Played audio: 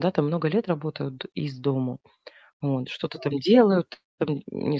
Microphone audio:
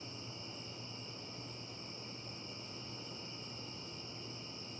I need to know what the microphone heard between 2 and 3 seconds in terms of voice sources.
neither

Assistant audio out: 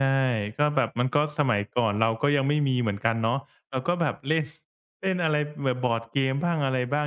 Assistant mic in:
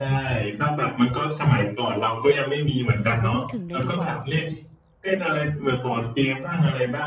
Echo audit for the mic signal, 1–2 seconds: echo only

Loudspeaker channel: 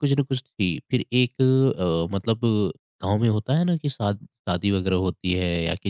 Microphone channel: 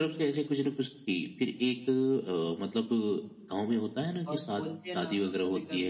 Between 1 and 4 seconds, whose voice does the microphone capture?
echo only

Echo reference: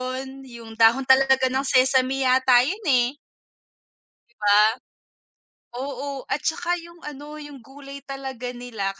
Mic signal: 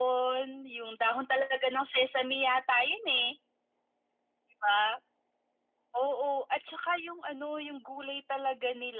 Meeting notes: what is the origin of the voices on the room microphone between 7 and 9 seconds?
echo only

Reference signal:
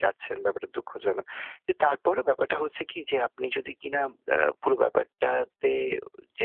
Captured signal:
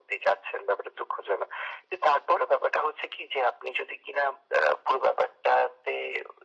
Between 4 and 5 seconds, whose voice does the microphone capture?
echo only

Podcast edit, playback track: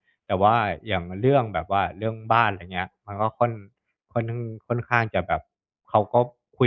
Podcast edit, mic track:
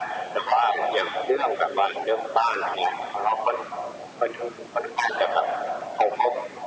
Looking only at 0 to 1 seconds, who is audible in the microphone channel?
echo only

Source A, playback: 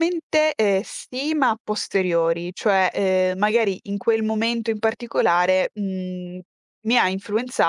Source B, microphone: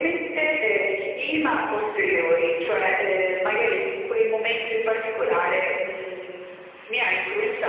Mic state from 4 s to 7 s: echo only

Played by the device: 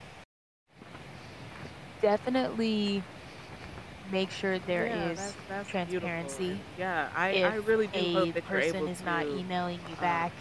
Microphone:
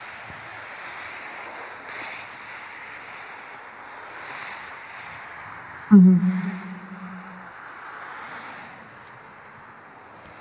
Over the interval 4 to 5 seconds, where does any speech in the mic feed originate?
neither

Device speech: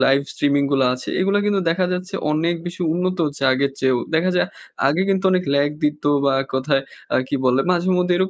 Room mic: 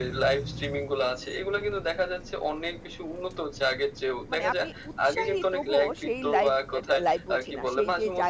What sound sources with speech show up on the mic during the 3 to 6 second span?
both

